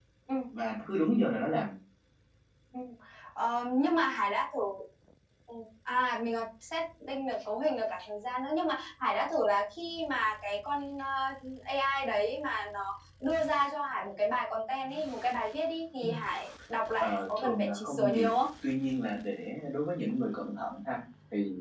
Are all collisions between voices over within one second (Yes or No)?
No